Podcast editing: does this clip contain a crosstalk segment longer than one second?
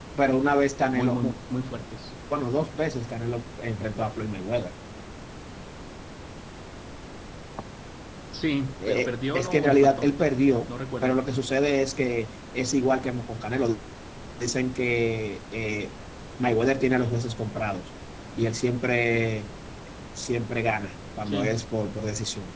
Yes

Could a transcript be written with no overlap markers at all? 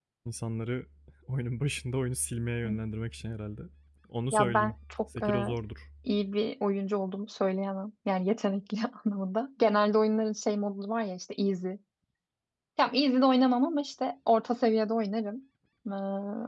No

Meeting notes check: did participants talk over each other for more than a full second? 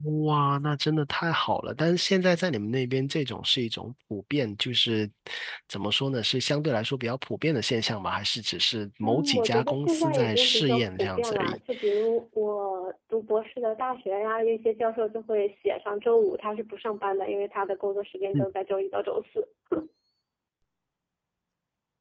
Yes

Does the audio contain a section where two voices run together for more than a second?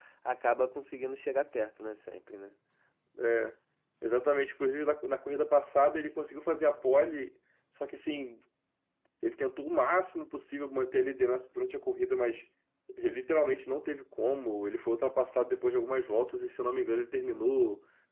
No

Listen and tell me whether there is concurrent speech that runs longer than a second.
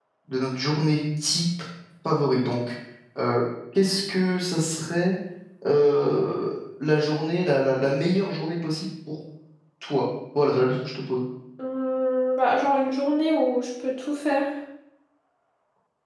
No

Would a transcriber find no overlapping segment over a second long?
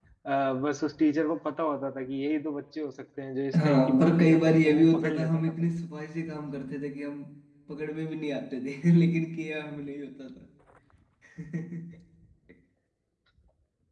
No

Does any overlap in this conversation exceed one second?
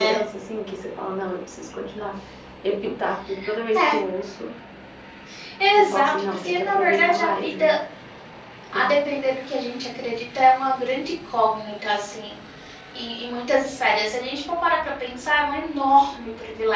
Yes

